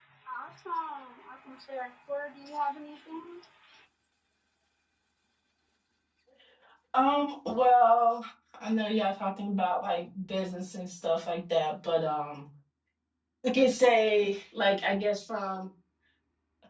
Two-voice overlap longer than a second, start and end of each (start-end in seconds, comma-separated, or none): none